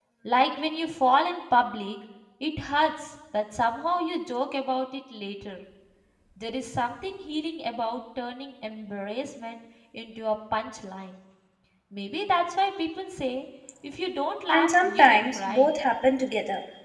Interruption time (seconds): 14.5 s

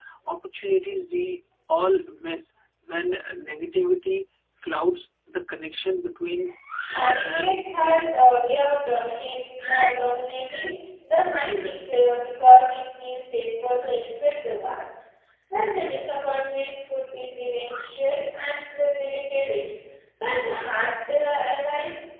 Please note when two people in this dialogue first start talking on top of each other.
6.9 s

